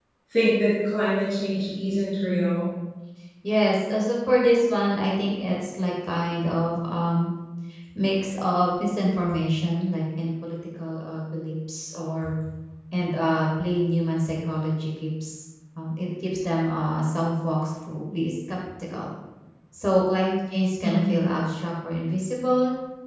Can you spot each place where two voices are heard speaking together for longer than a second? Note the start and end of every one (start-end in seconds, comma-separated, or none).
none